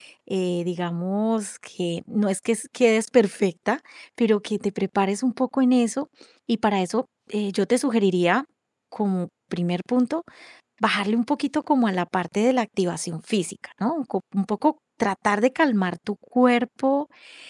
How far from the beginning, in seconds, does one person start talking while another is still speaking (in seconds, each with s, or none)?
none